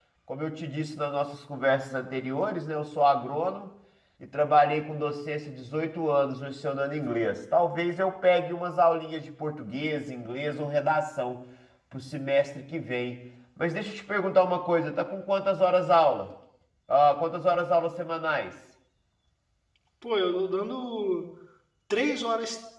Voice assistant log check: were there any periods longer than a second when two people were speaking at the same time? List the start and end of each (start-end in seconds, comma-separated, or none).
none